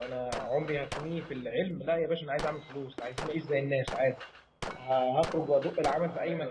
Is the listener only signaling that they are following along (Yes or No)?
Yes